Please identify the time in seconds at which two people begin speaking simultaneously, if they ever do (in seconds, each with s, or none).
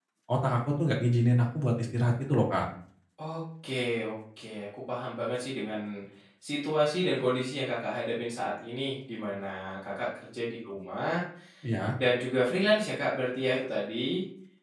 none